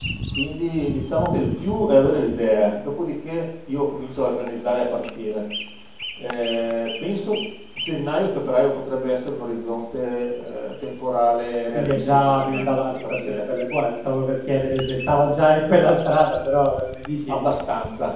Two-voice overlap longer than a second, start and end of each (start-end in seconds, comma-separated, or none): 11.7-13.4